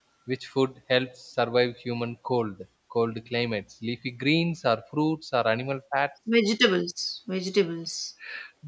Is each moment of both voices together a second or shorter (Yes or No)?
Yes